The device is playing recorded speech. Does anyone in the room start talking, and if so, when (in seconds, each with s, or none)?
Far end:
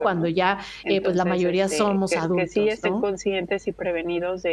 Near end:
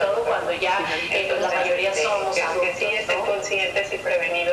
0.8 s